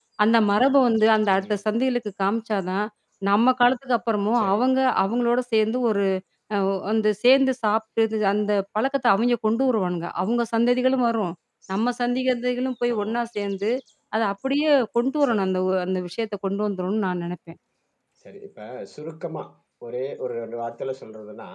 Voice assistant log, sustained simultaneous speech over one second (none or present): none